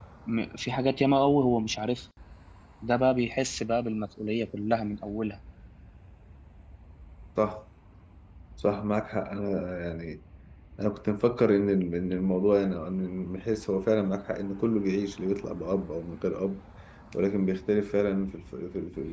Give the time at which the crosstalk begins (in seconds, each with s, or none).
none